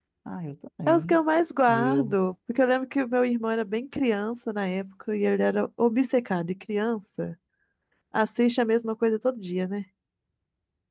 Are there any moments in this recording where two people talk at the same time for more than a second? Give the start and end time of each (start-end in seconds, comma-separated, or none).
none